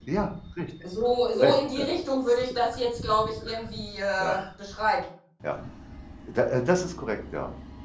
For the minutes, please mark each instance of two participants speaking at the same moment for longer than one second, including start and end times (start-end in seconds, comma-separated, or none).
none